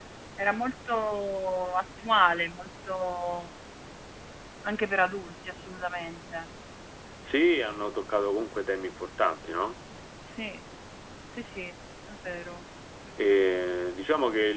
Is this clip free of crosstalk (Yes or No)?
Yes